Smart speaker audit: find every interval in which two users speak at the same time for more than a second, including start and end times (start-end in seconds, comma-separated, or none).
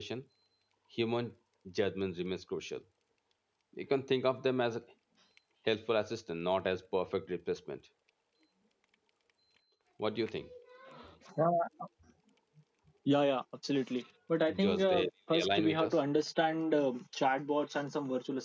14.6-16.0